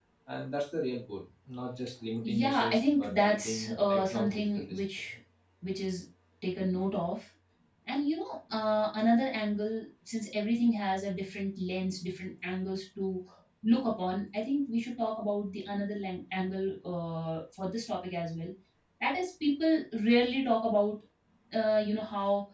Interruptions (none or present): present